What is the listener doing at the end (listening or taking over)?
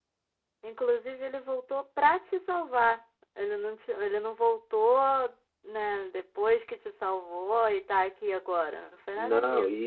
taking over